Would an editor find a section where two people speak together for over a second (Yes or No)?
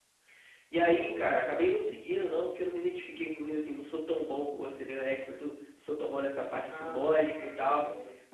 Yes